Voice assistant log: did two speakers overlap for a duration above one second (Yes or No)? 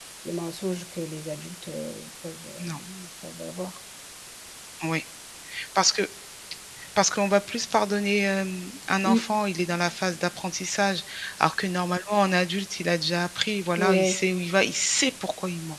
No